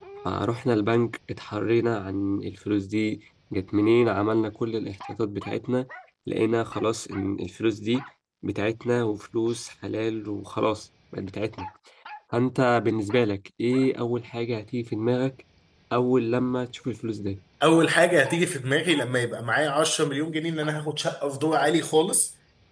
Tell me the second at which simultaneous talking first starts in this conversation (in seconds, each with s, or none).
none